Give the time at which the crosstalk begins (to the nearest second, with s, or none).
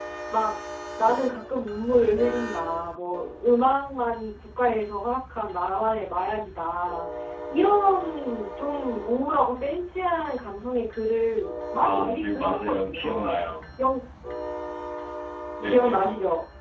12 s